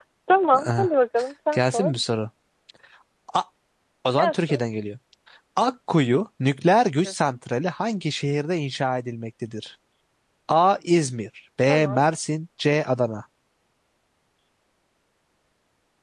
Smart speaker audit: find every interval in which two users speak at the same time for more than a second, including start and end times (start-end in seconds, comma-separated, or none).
none